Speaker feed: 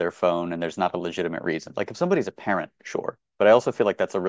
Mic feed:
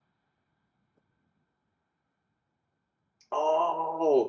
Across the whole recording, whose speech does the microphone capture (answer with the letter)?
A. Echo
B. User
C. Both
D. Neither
B